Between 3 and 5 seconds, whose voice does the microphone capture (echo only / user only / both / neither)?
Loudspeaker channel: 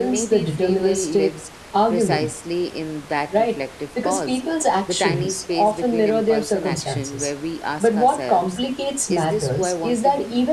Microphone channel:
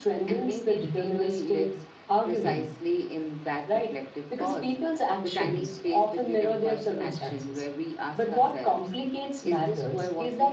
echo only